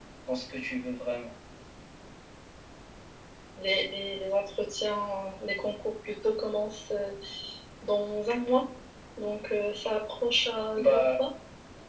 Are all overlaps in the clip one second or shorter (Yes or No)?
Yes